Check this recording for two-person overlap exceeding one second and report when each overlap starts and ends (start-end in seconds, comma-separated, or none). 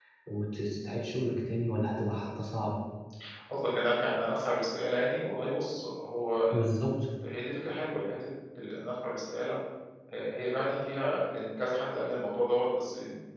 none